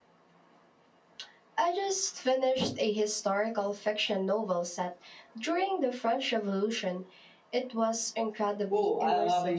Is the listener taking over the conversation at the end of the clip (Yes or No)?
Yes